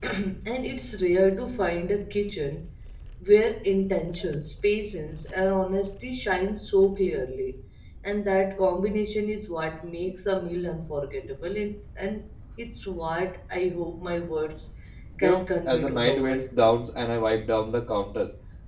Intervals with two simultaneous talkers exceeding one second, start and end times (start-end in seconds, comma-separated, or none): 15.2-16.4